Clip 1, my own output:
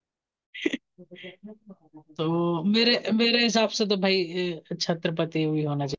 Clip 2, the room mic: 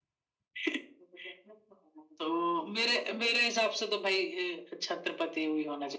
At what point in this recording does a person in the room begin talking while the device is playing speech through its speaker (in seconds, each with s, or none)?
none